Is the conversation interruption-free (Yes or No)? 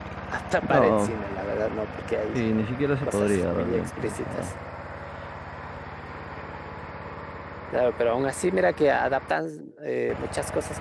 No